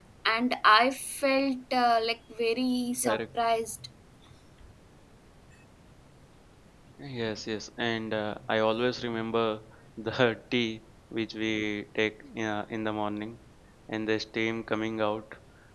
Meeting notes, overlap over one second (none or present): none